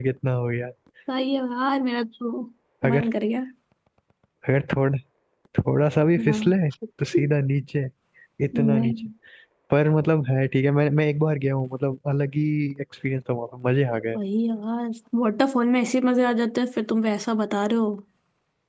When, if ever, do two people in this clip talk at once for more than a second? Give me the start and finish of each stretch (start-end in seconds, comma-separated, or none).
none